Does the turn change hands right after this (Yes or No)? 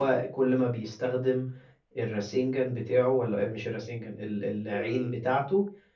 No